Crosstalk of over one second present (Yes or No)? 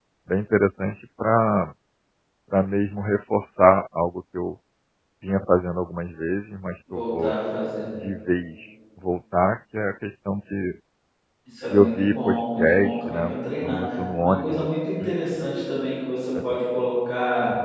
Yes